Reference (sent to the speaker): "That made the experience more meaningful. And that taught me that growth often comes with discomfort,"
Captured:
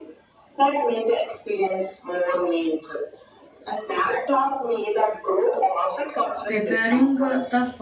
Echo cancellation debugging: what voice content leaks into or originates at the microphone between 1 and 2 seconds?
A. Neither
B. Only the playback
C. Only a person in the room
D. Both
B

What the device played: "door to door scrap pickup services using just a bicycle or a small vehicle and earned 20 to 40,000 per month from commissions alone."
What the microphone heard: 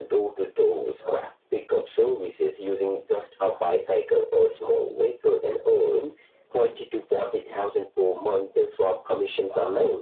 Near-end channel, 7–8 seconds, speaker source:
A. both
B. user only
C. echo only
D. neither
C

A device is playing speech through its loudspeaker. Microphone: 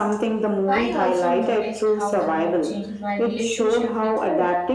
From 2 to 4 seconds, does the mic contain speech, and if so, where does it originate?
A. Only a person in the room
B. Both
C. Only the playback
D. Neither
B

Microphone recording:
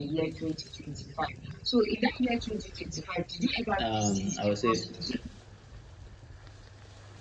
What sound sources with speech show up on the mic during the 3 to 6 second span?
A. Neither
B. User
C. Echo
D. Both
D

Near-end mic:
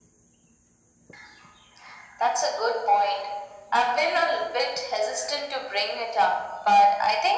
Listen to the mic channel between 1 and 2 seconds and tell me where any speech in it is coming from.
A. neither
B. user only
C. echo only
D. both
A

